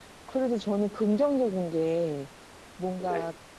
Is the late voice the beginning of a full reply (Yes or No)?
No